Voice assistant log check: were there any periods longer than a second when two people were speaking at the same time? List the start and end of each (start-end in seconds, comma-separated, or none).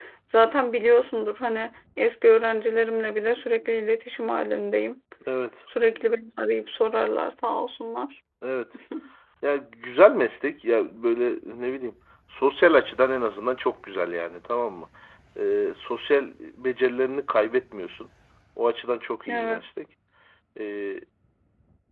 none